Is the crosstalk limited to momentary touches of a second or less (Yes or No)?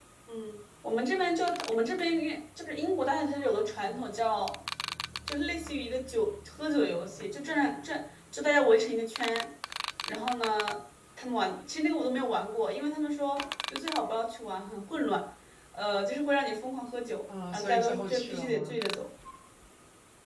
No